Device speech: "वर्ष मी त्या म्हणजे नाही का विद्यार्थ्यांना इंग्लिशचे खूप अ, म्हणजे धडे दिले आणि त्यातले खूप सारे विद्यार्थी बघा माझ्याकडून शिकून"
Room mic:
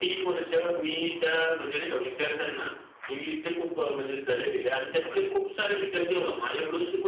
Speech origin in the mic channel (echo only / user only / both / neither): echo only